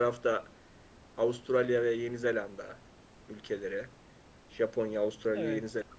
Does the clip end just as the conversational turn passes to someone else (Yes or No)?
No